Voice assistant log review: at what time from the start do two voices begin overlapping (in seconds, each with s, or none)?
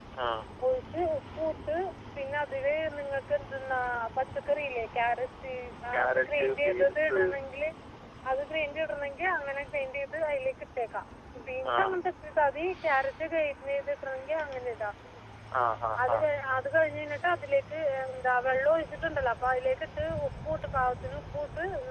5.9 s